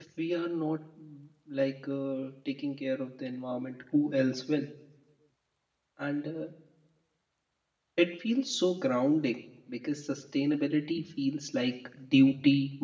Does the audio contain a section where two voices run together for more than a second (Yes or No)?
No